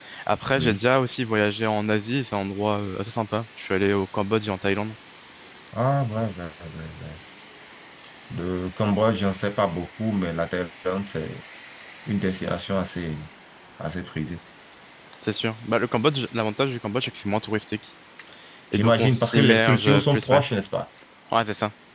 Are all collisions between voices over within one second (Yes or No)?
No